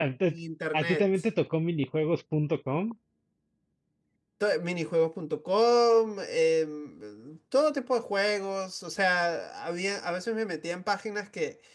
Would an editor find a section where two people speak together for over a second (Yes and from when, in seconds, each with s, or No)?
No